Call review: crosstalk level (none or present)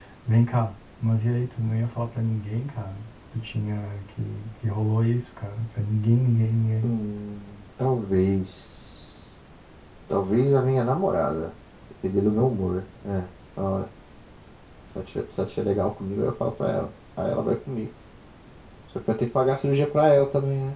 none